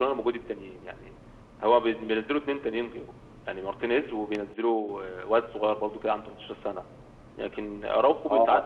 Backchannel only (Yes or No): Yes